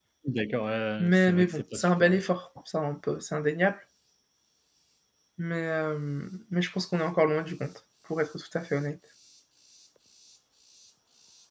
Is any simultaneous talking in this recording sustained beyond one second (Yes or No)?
Yes